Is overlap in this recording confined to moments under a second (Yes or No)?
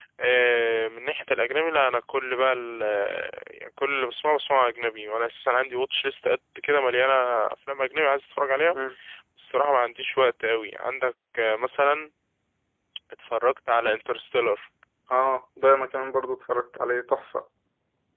Yes